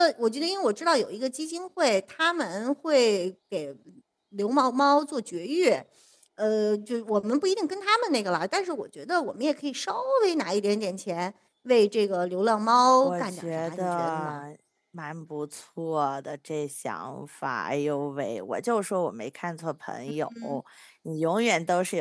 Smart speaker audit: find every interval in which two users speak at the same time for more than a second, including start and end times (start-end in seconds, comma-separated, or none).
13.0-14.4